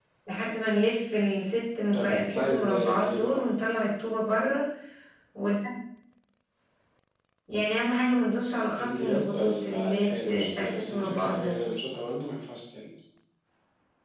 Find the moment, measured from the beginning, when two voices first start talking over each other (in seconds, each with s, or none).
1.9 s